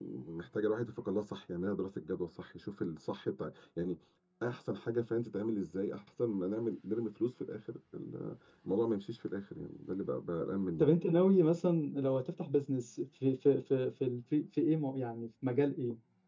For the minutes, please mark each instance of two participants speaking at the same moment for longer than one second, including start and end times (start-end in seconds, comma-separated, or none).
none